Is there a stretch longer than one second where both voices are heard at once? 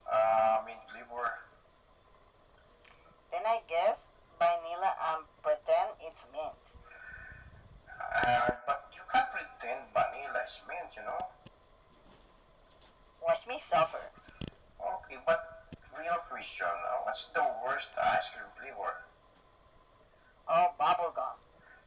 No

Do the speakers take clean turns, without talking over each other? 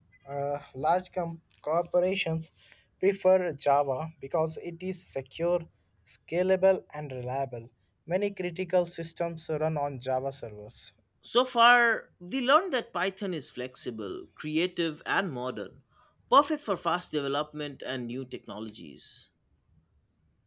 Yes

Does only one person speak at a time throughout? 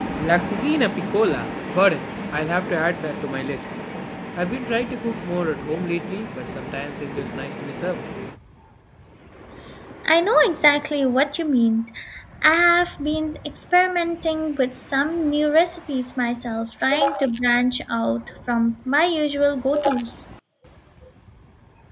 Yes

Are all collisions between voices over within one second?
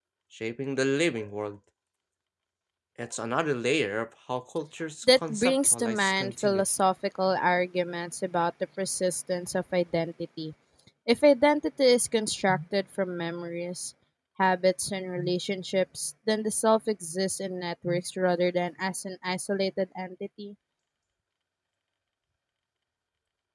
No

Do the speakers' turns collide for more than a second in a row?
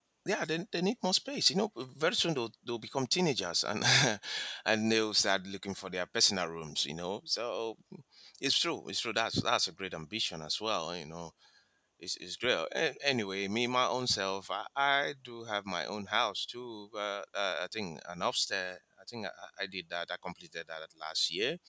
No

